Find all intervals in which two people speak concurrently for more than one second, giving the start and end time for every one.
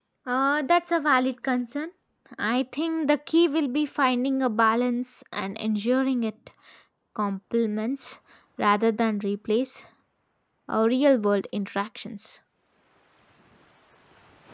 none

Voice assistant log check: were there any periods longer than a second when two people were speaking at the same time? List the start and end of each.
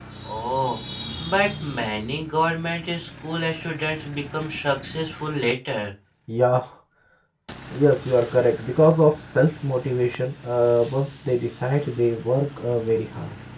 none

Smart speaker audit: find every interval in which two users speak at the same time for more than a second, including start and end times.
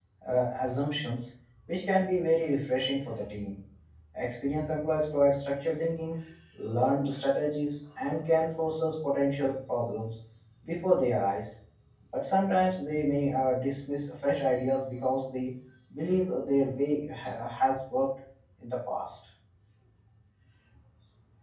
none

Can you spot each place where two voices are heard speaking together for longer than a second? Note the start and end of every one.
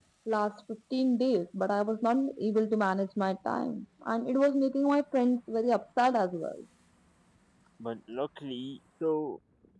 none

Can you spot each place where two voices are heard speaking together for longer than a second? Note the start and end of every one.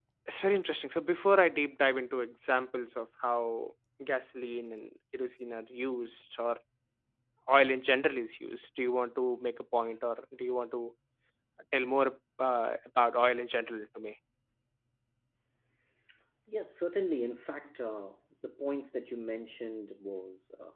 none

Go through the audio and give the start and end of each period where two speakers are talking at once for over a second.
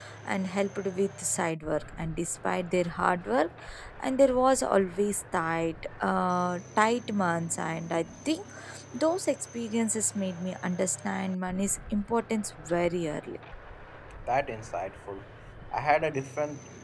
none

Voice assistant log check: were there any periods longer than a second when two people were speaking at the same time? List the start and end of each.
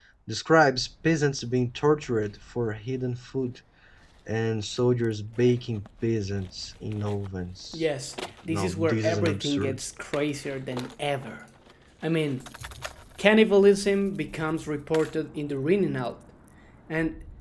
8.5-9.8

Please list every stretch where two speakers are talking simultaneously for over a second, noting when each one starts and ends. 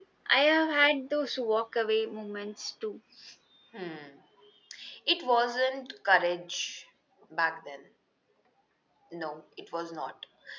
none

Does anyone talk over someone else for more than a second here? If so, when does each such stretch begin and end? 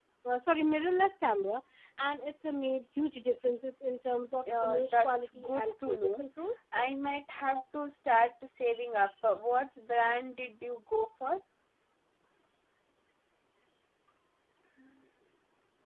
4.6-6.2

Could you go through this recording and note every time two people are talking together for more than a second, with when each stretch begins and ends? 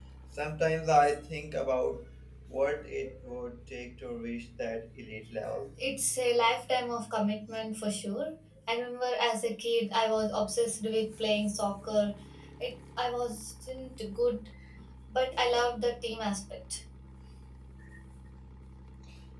none

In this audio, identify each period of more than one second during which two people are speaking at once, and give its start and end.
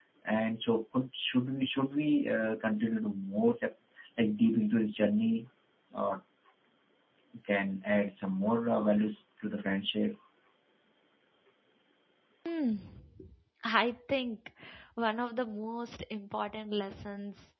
none

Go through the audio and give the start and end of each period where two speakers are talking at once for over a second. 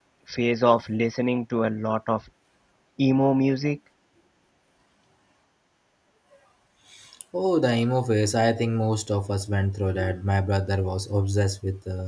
none

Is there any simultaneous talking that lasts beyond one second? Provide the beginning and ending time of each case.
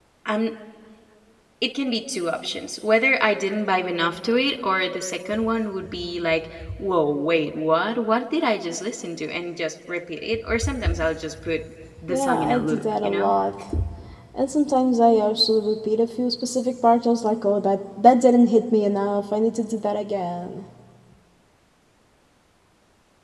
12.1-13.3

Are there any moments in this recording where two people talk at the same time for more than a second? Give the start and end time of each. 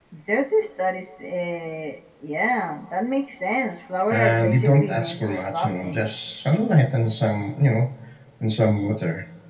4.1-6.0

